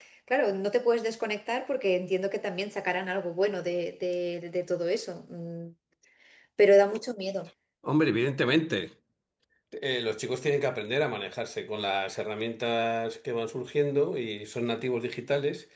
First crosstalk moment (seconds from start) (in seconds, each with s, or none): none